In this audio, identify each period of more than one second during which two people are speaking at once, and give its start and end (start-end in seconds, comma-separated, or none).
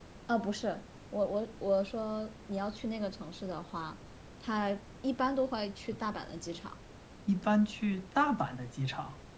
none